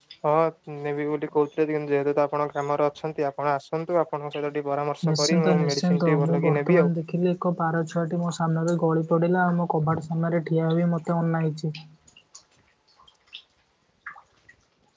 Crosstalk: present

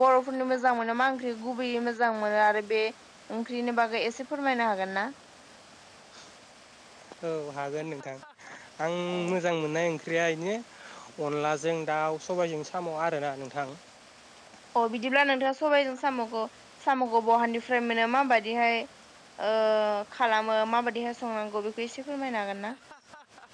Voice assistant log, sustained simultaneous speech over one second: none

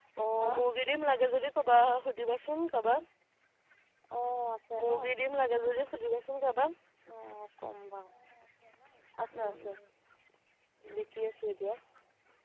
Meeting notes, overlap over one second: none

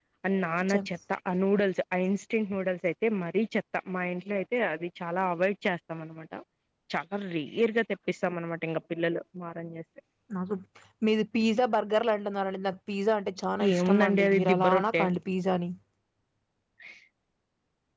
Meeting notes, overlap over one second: present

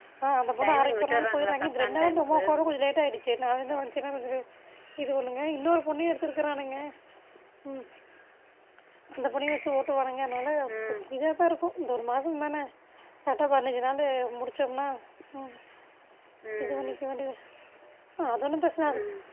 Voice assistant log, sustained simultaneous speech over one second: present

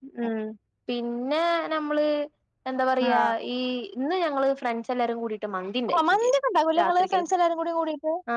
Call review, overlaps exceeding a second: none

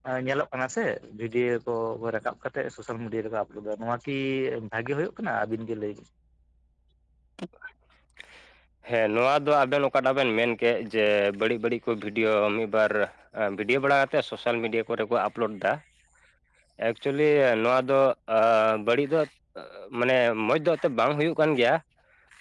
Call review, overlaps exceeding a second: none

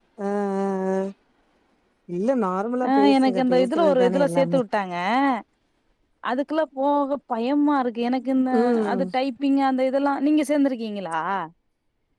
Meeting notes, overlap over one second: present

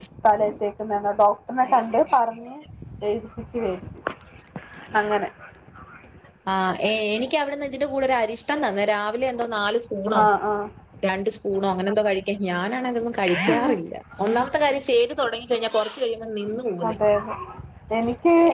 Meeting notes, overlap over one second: none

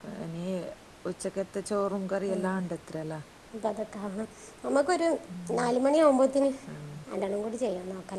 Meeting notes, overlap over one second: none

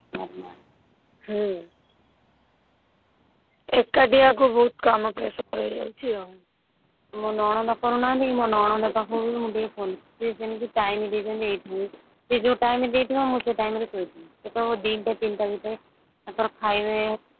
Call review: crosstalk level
none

